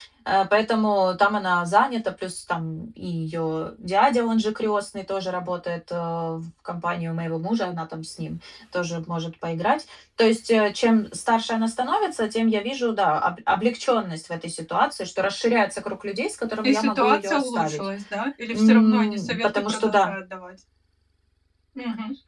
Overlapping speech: Yes, from 16.6 s

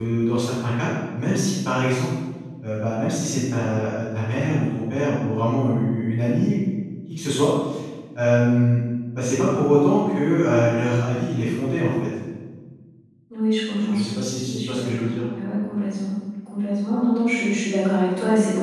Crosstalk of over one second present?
Yes, from 13.9 s

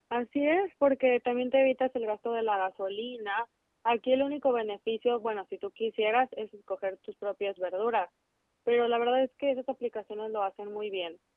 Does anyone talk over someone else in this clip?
No

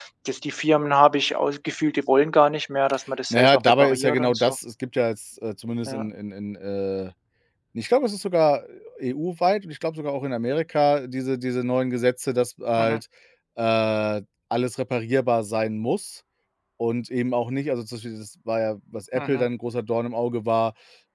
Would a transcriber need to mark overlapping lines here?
Yes, from 3.3 s

